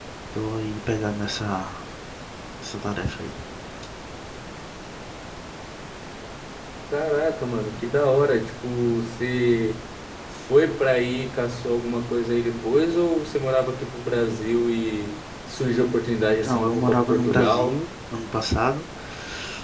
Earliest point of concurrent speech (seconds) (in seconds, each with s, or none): 16.4 s